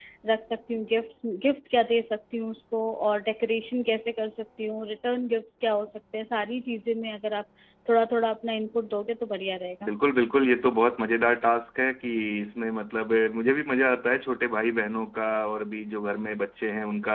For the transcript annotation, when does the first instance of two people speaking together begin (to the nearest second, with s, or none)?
none